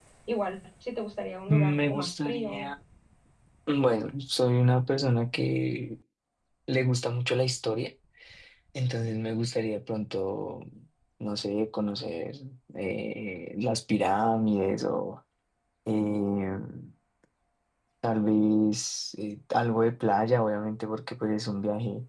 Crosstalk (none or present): present